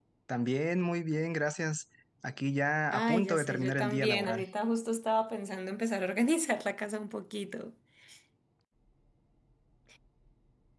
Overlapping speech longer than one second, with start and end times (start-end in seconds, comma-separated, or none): 2.9-4.4